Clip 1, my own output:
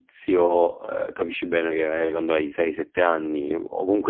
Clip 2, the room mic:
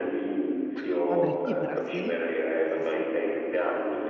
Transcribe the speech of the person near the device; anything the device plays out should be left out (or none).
Ah. Fabri Fibra, sì. Sì, sì.